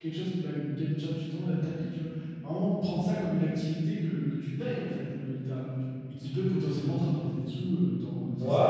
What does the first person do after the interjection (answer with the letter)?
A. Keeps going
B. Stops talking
B